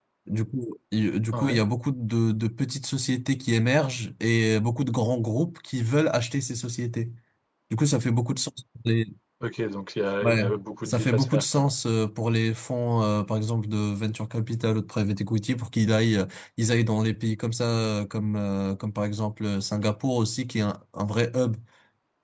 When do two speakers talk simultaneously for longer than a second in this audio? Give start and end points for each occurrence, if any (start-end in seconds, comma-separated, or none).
10.2-11.7